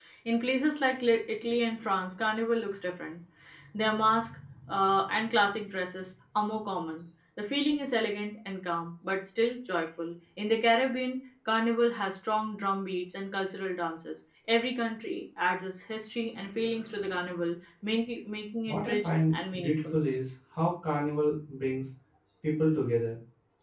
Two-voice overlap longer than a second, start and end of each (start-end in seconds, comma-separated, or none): 18.7-20.0